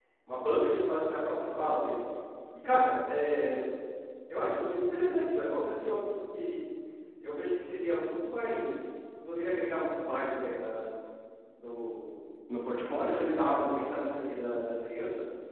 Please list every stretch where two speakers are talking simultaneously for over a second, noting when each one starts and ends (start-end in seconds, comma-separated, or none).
12.8-14.0